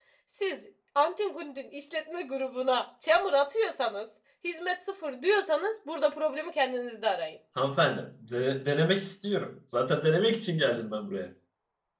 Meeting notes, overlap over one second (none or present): none